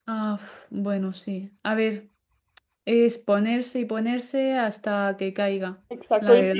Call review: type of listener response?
taking over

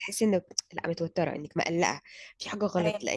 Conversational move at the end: listening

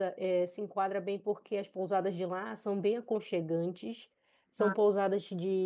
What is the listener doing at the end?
listening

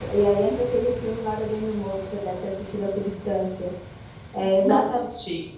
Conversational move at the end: listening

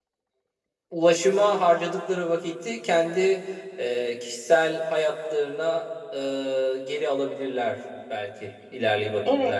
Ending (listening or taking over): taking over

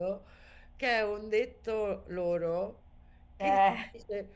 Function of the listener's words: listening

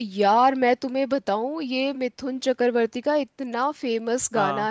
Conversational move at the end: listening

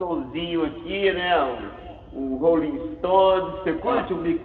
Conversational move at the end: listening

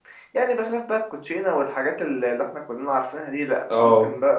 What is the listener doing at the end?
listening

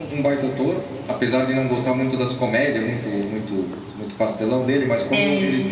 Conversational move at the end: listening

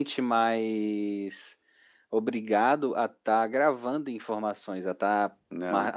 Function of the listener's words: listening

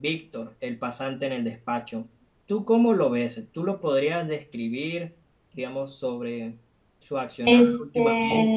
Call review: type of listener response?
listening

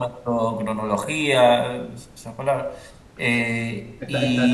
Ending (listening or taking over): taking over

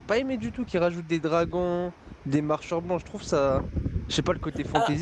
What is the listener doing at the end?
taking over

